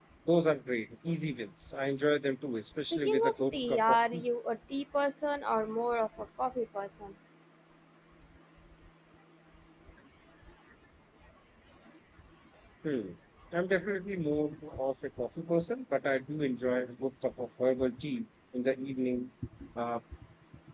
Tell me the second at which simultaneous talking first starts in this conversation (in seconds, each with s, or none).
2.7 s